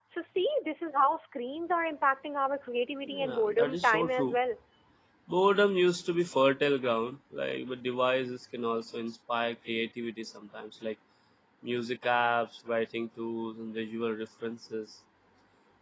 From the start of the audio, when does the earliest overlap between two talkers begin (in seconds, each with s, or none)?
3.0 s